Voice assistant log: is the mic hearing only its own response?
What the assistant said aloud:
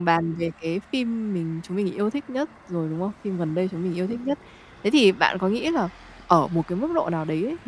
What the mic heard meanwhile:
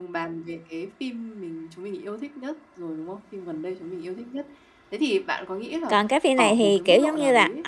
No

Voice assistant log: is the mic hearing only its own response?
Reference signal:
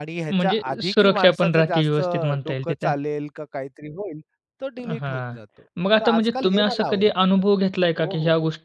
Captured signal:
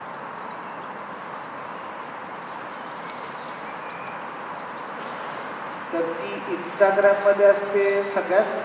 No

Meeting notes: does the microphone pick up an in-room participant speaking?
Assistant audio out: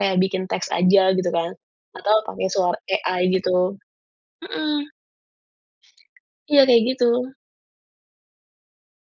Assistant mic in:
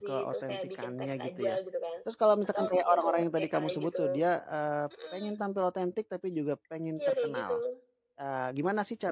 Yes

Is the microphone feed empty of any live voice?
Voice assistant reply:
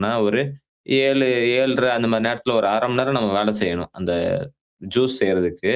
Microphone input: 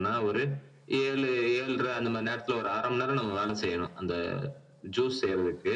Yes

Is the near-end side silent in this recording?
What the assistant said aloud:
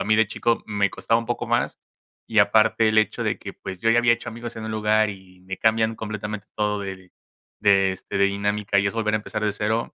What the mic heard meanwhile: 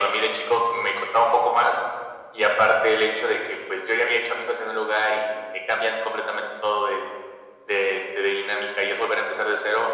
Yes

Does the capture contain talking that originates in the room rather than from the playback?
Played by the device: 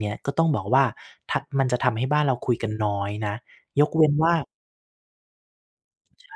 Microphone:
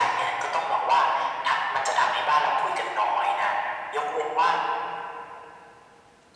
No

